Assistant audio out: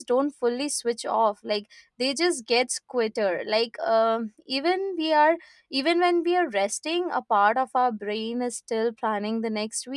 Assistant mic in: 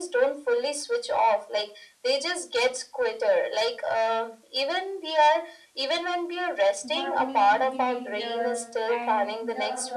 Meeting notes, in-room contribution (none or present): present